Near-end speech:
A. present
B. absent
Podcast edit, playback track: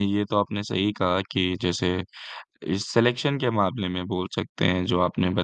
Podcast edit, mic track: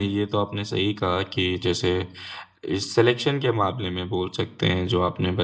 B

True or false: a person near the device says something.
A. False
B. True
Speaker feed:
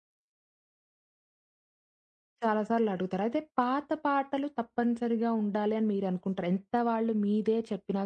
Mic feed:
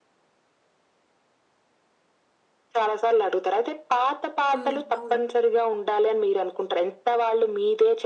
B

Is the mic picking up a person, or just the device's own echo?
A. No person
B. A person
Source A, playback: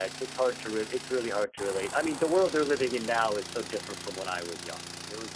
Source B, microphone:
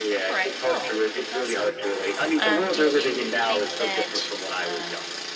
B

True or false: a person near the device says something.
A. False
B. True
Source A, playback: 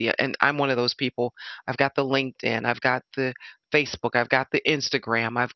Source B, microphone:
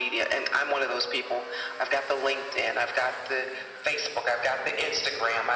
A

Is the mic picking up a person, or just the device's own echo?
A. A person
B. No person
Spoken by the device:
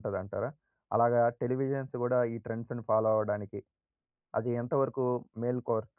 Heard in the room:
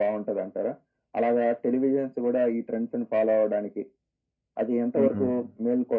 A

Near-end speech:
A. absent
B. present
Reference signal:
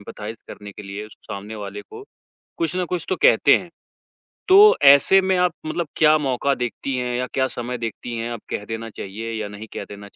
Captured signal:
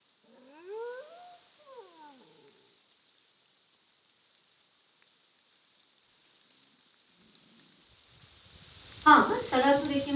B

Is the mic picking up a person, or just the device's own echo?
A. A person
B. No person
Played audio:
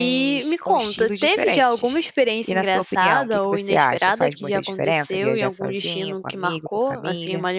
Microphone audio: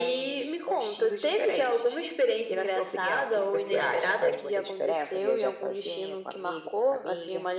B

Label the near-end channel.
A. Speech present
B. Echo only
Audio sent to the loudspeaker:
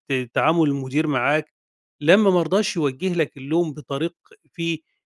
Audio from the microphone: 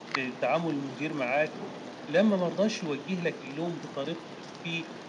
B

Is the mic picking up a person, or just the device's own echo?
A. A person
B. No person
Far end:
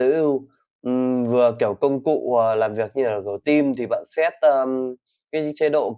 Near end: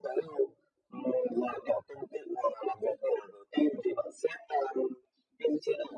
B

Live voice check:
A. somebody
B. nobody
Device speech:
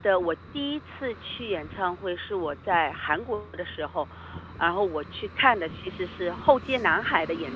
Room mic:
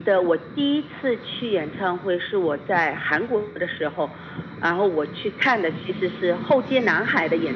B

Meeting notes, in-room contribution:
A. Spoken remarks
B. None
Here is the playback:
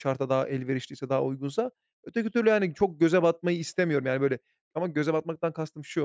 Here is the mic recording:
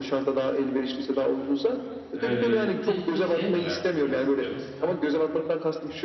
A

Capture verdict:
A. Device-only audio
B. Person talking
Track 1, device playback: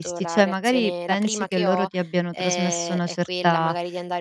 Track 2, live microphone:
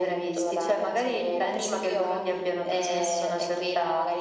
A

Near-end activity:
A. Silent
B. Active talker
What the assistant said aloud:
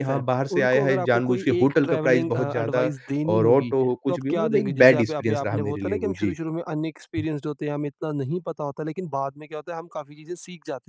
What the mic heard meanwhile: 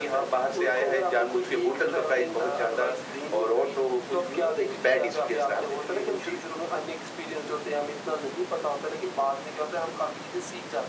A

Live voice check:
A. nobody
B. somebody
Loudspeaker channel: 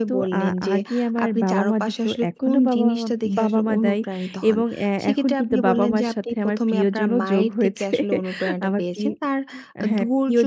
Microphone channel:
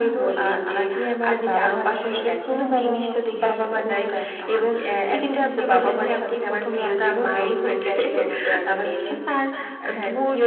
A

